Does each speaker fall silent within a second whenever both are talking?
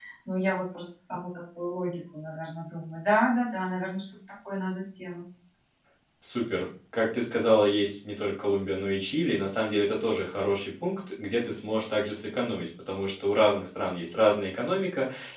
Yes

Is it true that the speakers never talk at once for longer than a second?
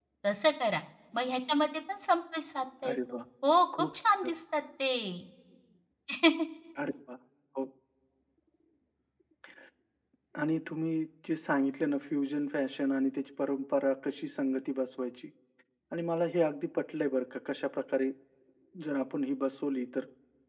Yes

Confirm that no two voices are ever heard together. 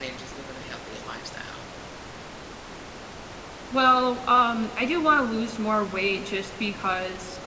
Yes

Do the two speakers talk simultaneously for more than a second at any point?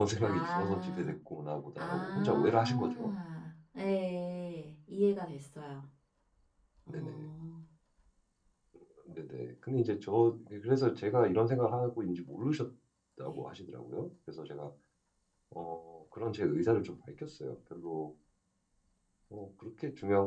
Yes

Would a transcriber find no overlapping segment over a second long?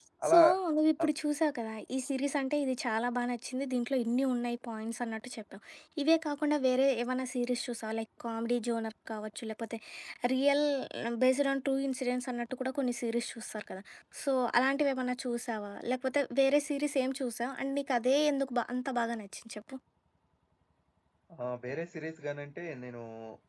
Yes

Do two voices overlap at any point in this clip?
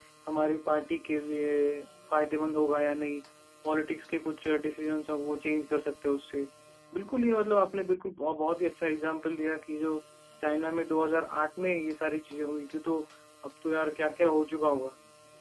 No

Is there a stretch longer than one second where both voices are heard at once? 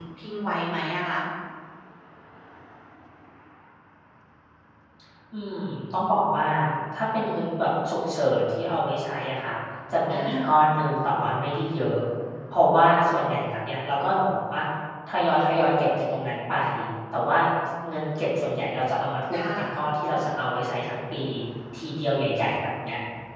No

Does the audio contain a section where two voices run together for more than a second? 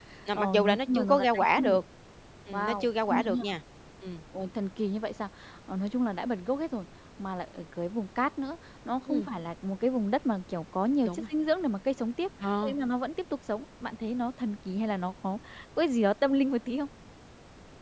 Yes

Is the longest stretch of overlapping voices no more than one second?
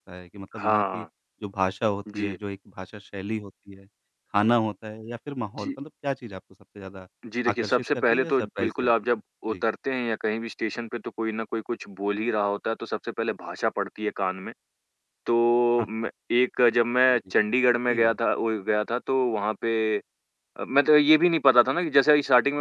No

